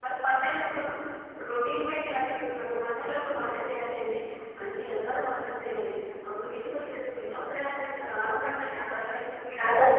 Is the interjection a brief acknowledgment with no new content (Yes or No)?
No